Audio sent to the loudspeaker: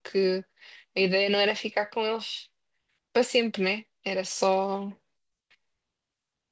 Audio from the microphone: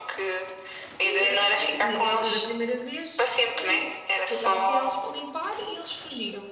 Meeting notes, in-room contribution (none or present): present